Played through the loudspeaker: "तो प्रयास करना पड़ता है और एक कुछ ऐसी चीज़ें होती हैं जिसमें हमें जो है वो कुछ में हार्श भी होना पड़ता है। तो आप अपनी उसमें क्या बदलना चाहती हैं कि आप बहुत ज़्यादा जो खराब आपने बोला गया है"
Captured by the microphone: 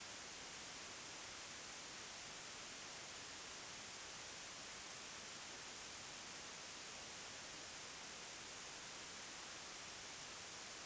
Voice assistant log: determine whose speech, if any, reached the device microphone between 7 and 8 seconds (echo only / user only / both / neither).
neither